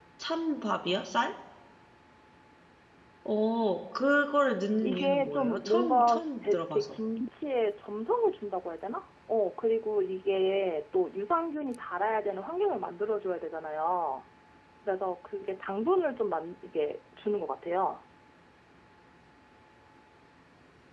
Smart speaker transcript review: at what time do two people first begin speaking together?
5 s

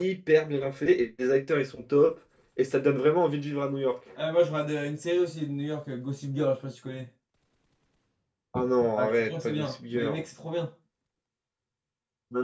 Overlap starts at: 9 s

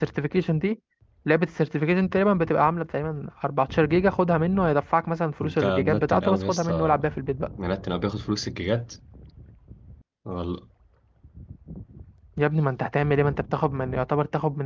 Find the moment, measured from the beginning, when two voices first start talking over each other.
5 s

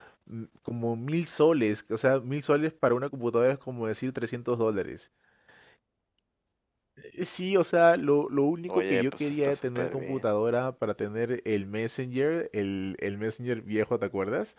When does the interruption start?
9 s

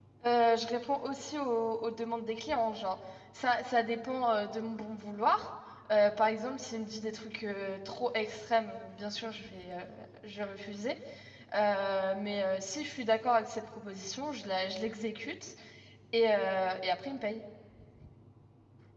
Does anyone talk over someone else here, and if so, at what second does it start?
none

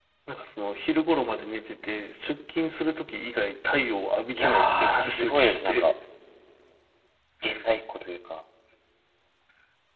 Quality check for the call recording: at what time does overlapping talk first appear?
4 s

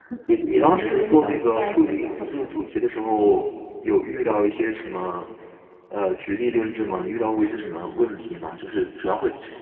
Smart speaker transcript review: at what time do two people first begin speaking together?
1 s

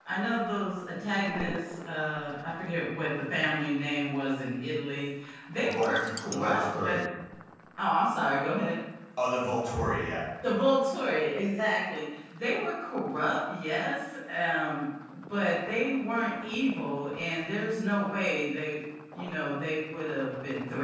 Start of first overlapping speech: 6 s

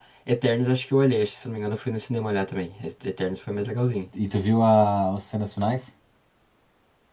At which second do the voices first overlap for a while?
none

